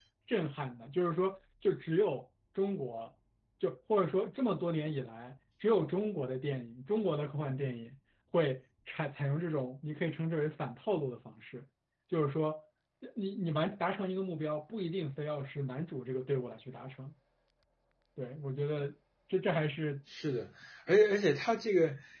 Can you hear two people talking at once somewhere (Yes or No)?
No